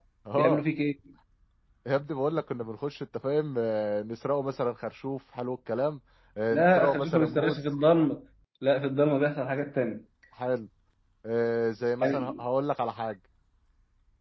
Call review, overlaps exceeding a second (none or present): present